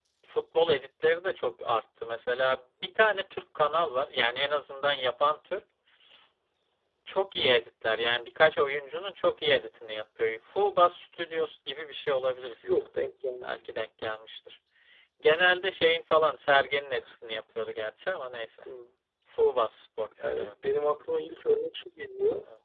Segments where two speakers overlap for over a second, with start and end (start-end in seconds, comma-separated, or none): none